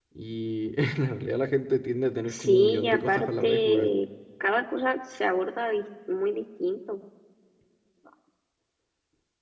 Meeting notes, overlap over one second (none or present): present